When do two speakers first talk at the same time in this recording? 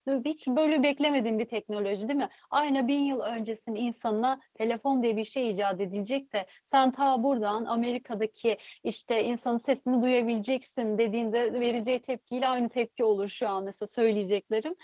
none

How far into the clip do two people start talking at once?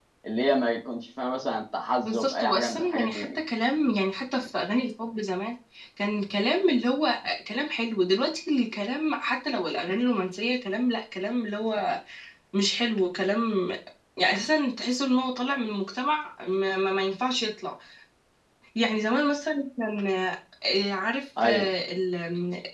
2 s

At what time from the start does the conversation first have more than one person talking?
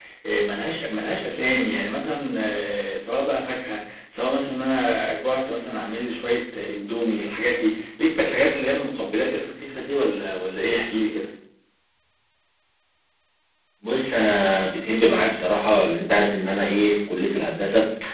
none

